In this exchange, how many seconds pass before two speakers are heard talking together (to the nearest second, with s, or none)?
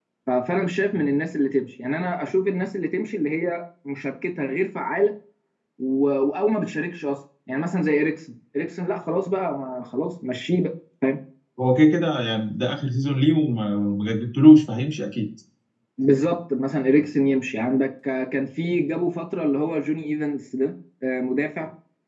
none